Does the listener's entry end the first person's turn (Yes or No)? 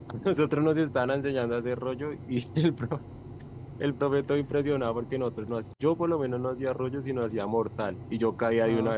No